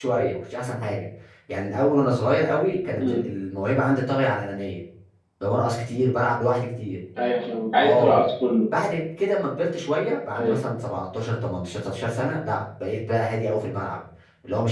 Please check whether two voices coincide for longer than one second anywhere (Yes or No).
No